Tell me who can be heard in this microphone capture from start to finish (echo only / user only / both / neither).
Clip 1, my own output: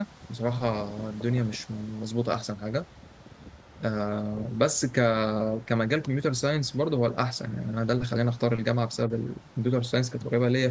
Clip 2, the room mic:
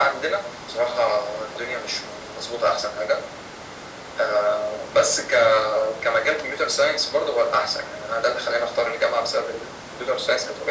echo only